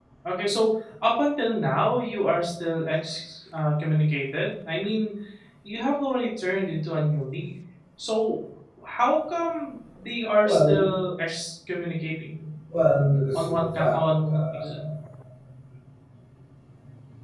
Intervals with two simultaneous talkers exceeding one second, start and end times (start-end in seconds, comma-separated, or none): 13.3-14.9